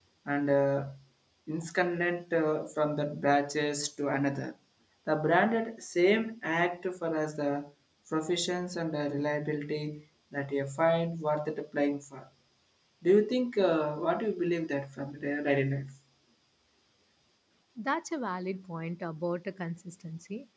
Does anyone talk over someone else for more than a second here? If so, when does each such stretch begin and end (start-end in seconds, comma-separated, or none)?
none